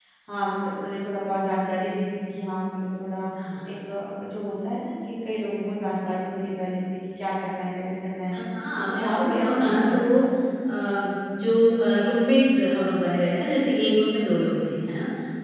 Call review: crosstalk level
present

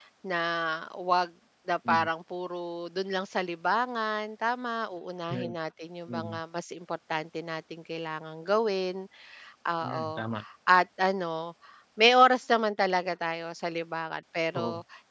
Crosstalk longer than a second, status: none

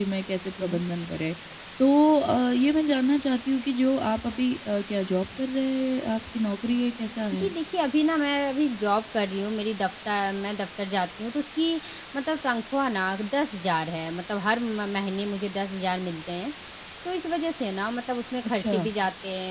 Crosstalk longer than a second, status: none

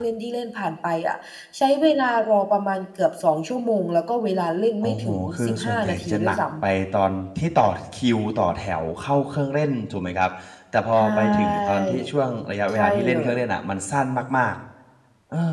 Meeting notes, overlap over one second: present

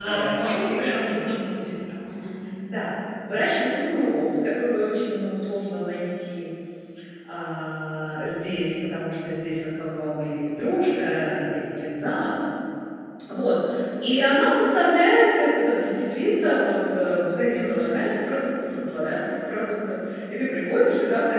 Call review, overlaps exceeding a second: present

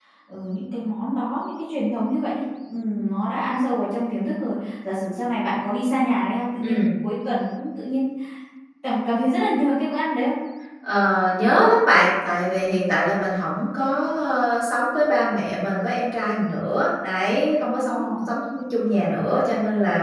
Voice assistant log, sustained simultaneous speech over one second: none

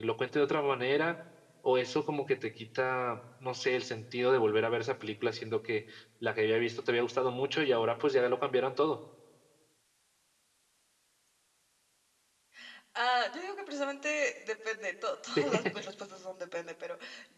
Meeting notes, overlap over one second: none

